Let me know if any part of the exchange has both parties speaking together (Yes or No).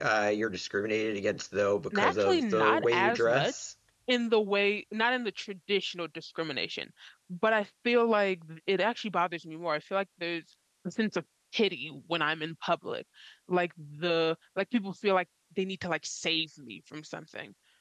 Yes